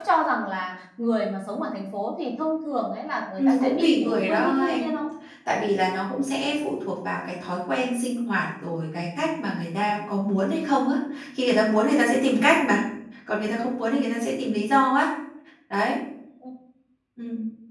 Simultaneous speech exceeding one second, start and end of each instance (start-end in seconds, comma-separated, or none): 3.4-4.8